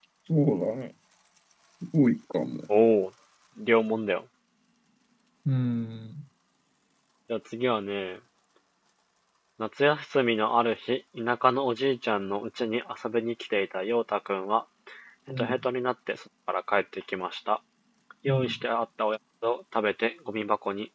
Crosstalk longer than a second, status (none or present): none